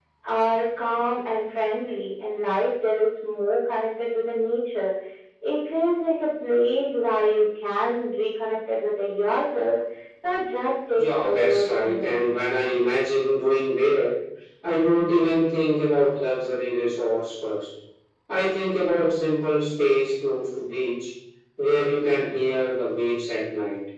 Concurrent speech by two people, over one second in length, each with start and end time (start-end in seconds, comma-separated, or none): 10.9-12.4